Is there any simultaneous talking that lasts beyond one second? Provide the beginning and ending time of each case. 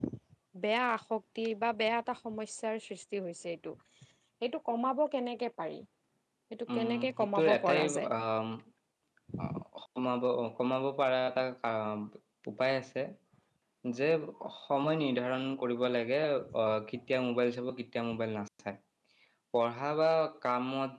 6.7-8.1

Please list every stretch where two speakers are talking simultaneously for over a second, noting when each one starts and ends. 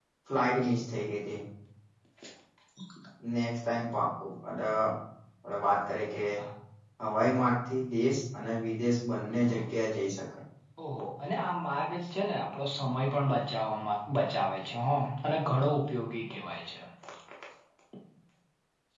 none

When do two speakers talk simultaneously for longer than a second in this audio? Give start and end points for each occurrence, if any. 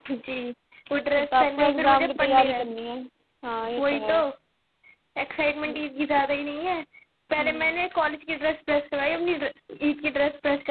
1.2-2.6

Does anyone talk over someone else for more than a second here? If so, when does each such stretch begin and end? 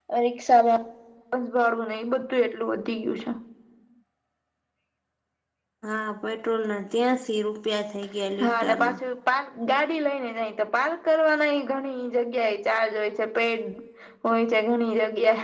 none

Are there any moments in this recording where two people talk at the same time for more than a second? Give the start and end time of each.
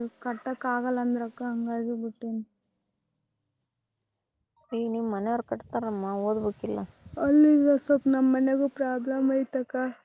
none

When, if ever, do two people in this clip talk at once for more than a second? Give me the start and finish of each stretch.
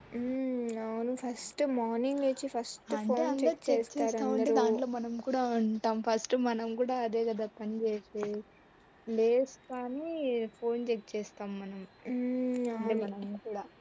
3.0-4.6

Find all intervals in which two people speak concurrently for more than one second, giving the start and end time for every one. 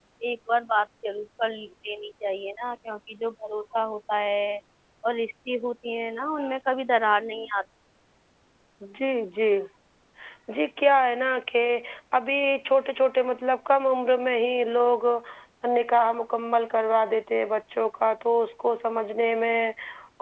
none

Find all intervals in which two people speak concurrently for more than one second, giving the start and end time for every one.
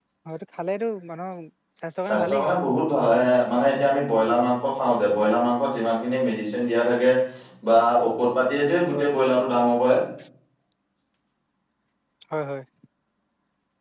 none

